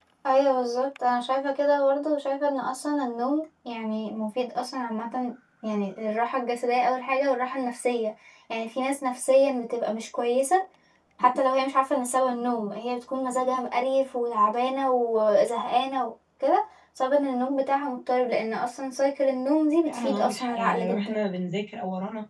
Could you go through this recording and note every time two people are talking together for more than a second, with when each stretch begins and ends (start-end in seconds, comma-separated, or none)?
19.9-21.2